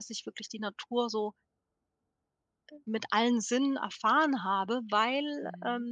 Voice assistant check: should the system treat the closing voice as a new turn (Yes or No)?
No